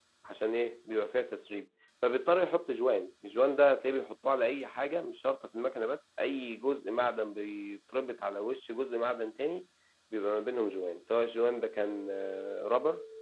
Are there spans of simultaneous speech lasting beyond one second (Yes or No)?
No